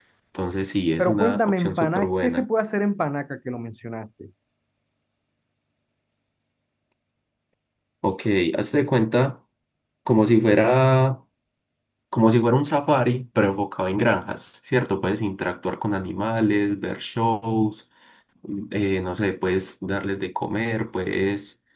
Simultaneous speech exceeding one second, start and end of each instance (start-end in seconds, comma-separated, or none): 1.0-2.4